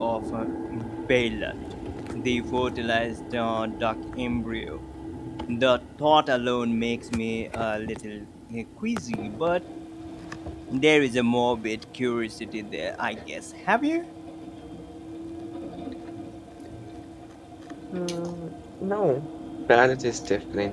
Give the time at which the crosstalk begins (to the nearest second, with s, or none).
none